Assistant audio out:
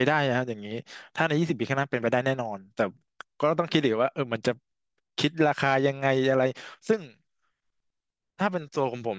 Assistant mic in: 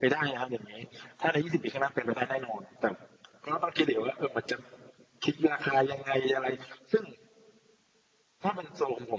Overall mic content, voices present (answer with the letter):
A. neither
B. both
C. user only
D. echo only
D